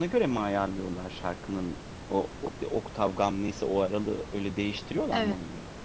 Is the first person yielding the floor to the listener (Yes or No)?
Yes